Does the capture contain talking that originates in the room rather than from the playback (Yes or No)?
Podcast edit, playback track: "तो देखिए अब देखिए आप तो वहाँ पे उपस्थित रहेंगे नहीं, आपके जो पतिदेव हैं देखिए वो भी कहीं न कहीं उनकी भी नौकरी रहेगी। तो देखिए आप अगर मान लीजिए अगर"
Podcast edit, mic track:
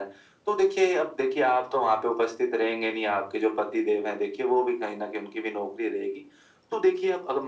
No